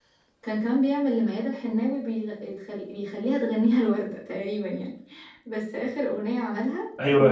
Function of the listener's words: taking over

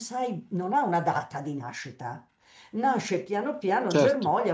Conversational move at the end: listening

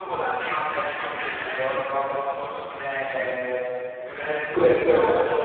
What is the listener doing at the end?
listening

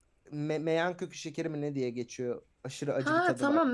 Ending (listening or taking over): taking over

